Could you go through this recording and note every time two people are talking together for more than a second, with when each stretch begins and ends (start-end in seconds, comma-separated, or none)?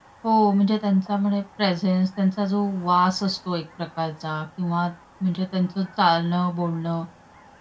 none